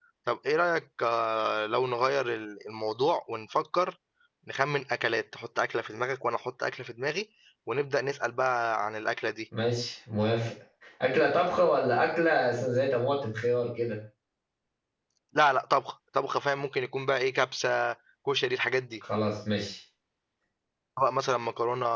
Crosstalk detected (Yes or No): No